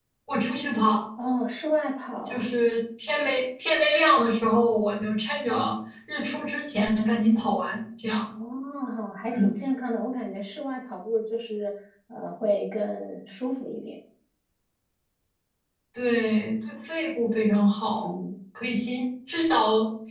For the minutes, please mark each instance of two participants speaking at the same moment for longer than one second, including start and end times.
none

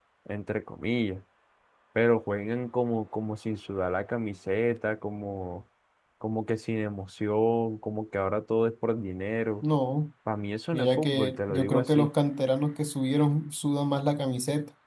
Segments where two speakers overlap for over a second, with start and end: 10.7-12.1

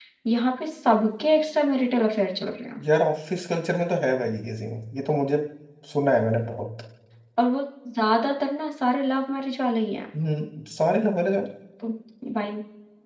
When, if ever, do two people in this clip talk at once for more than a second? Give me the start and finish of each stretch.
none

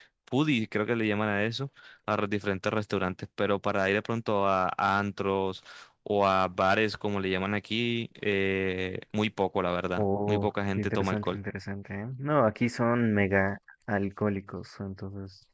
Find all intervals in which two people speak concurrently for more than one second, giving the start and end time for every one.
10.0-11.4

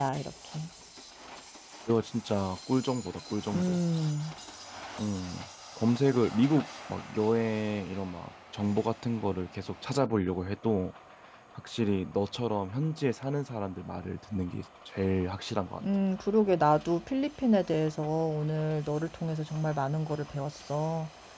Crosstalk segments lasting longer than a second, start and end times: none

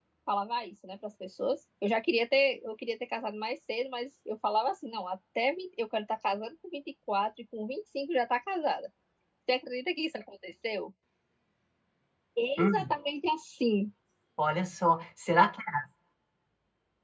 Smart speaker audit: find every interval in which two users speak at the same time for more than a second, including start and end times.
none

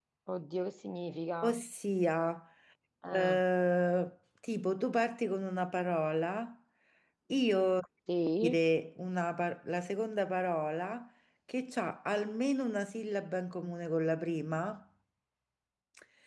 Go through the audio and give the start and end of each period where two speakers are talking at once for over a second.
none

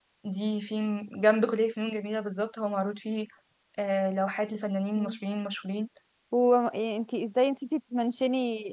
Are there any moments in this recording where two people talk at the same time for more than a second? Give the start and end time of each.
none

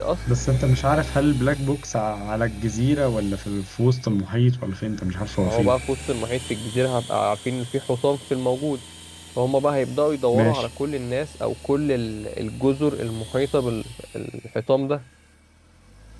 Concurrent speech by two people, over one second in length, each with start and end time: none

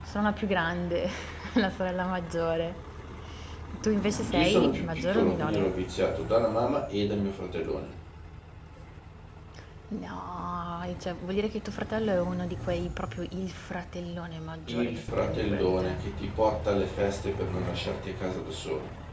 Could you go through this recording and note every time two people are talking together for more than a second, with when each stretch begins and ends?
4.3-5.7, 14.7-16.0

